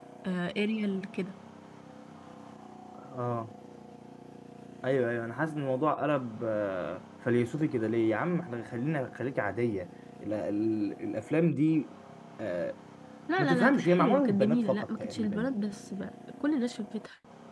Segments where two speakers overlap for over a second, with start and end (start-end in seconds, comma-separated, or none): 13.4-15.5